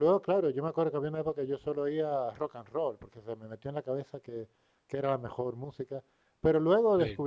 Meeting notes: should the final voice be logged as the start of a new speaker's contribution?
No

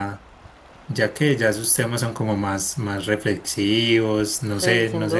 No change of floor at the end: No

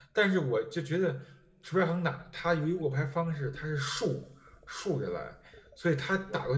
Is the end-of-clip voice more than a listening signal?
No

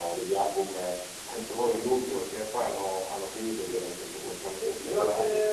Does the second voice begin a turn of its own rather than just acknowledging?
Yes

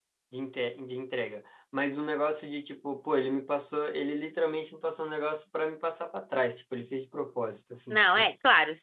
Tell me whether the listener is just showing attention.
No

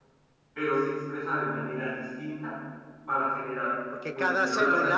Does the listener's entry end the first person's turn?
Yes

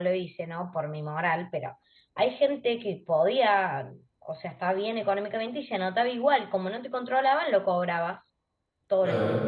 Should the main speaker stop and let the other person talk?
No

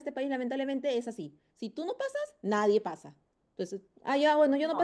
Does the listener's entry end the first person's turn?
No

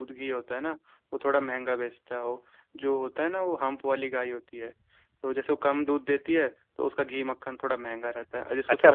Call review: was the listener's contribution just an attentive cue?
No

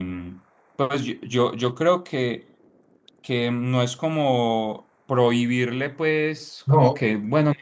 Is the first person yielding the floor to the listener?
No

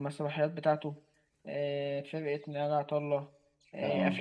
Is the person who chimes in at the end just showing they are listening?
Yes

